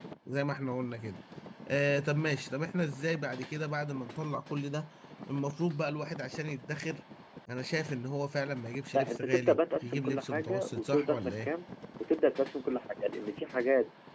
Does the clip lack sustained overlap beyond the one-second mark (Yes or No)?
No